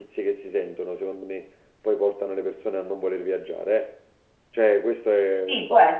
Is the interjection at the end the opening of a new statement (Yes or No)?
Yes